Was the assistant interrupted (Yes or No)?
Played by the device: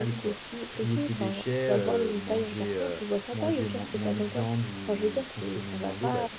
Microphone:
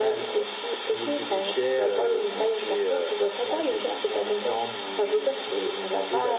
No